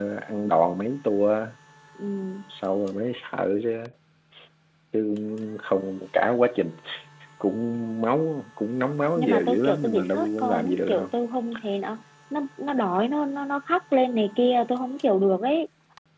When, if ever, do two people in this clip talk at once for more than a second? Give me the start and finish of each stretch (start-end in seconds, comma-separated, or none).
9.2-11.1